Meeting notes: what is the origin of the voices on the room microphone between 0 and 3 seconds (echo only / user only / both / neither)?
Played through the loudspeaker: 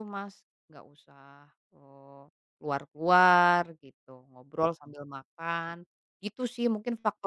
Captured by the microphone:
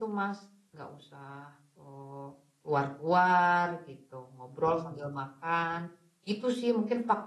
echo only